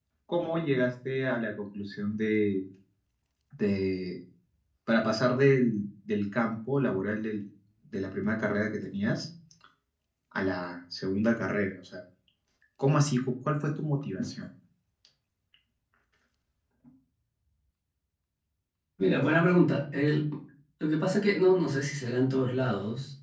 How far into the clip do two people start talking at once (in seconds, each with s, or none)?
none